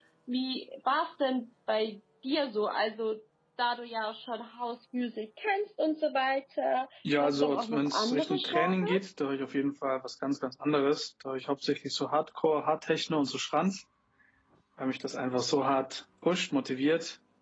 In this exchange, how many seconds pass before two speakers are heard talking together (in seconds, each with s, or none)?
7.0 s